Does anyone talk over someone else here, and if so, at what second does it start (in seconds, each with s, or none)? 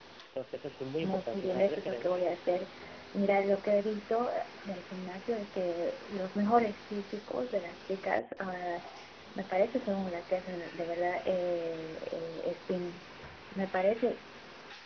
1.0 s